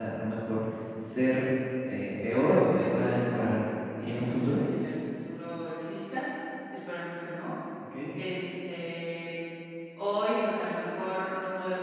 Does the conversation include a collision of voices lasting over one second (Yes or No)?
Yes